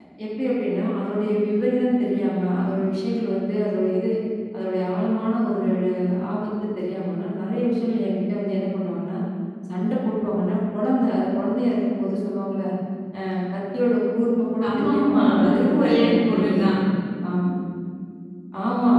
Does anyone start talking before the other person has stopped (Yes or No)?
Yes